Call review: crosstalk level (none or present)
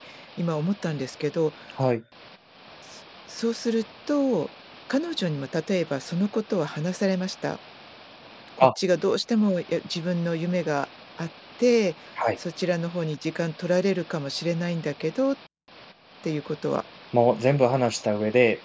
none